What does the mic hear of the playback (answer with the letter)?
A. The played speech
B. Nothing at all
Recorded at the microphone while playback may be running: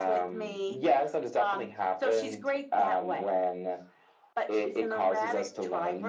A